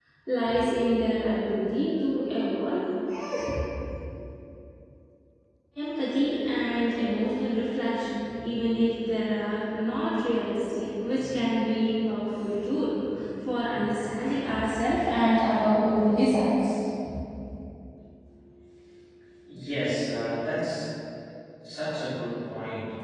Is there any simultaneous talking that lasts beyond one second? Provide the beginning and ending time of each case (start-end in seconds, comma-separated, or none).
none